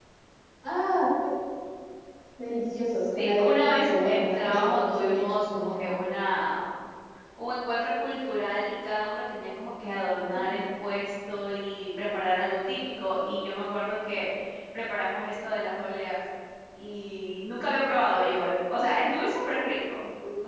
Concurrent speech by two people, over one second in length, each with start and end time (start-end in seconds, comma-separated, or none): 3.2-5.9